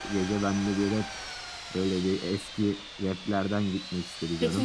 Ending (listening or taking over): taking over